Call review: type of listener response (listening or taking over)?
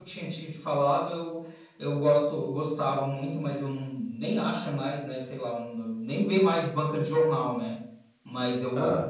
listening